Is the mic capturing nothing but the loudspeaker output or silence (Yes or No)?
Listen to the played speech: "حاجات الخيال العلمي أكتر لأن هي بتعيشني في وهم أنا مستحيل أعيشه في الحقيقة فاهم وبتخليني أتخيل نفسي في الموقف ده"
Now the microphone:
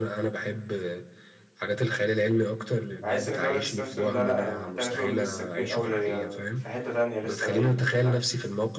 No